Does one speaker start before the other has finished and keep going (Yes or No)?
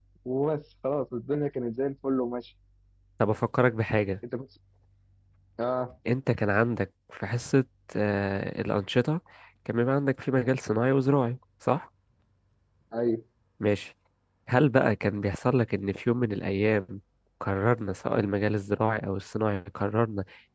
No